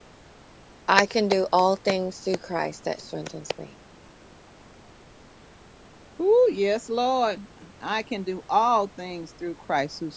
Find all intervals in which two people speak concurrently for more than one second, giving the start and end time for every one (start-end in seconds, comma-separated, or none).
none